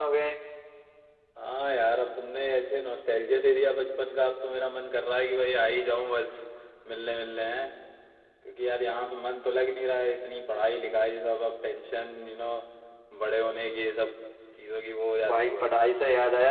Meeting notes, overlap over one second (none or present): none